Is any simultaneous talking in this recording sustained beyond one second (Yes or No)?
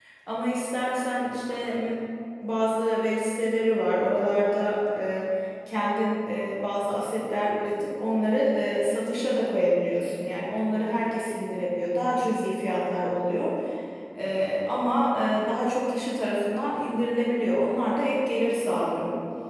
No